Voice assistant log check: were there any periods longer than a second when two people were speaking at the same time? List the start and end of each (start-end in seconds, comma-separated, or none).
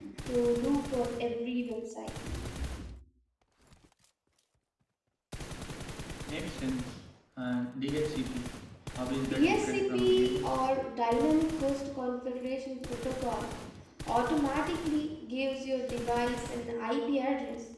9.3-10.5